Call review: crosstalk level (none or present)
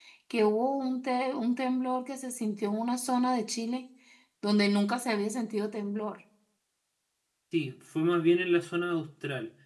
none